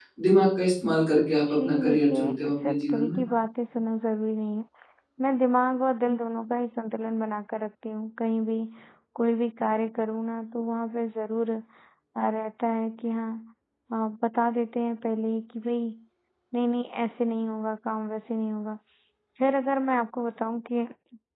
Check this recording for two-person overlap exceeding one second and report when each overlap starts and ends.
1.5-3.2

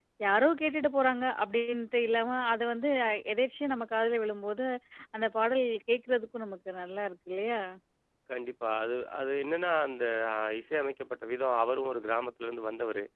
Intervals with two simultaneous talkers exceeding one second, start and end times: none

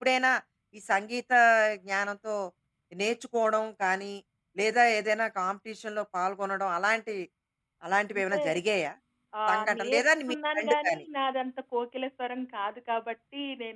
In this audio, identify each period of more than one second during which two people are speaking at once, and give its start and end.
9.5-11.0

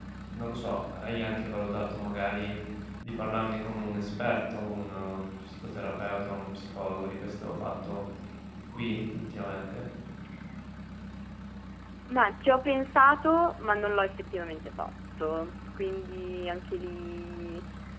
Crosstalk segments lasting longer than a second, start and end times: none

